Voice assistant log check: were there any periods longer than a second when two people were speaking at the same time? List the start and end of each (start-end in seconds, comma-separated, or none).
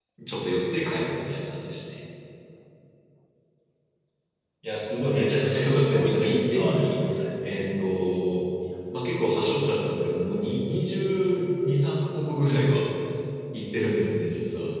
5.1-7.0